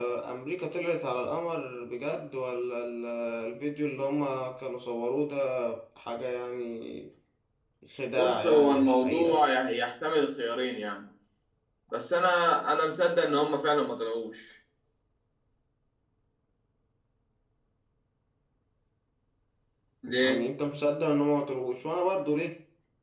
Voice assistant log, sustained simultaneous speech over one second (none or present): present